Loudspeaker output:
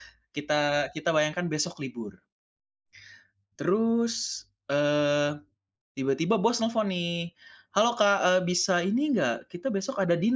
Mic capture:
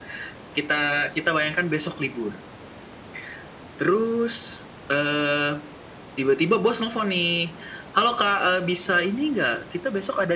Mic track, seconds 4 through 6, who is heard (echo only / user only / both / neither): echo only